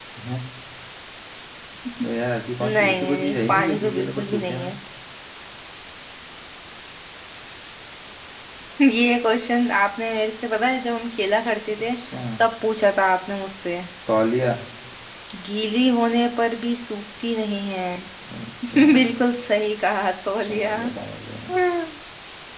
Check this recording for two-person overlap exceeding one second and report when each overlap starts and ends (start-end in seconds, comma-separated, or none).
2.6-4.7